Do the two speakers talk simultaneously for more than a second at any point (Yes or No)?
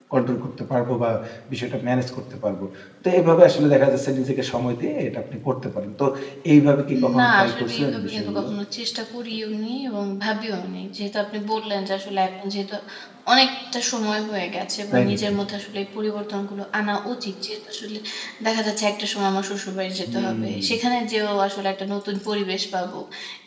Yes